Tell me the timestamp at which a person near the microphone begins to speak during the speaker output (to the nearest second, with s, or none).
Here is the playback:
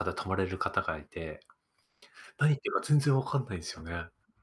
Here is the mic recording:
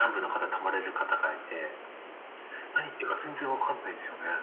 none